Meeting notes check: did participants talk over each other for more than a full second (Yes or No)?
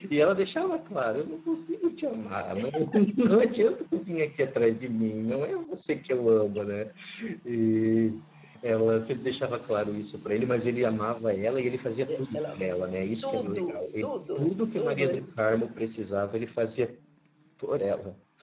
Yes